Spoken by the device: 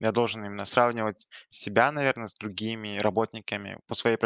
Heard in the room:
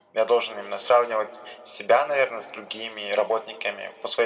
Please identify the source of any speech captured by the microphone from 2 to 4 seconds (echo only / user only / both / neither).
echo only